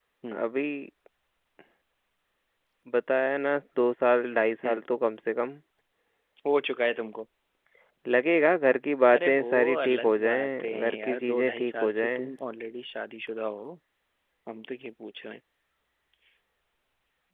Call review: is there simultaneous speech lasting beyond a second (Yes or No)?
Yes